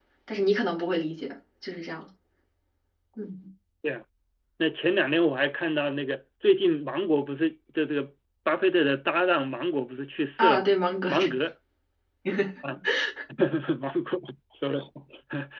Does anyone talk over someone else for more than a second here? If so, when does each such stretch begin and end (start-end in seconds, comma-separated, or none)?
none